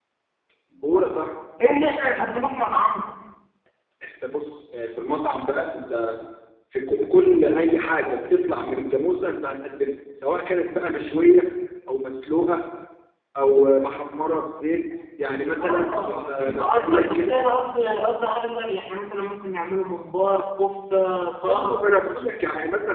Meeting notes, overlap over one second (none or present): present